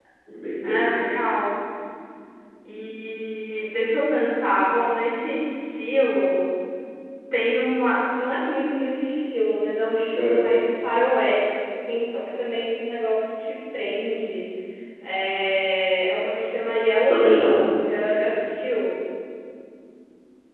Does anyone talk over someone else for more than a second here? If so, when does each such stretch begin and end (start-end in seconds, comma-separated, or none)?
none